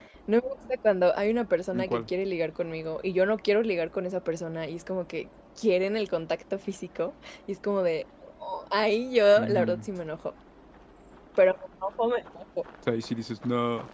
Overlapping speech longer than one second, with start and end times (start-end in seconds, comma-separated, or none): none